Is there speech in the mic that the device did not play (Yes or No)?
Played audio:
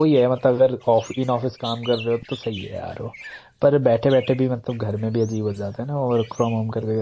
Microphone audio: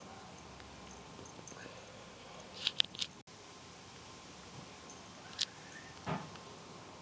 No